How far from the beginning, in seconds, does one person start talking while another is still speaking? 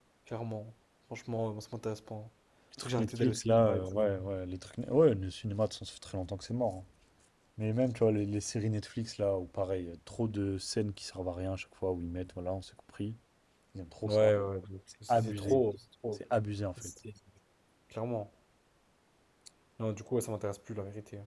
2.8 s

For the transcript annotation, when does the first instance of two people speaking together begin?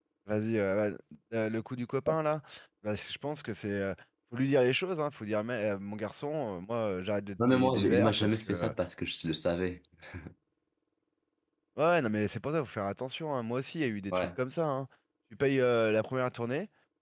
7.4 s

